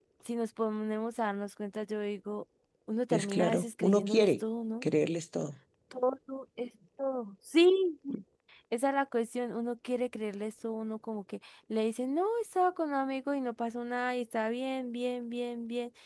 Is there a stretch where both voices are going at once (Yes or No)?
Yes